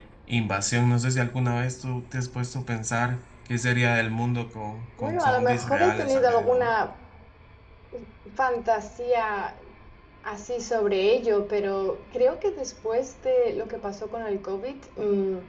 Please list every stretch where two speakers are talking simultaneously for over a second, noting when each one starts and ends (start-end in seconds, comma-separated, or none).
5.0-6.7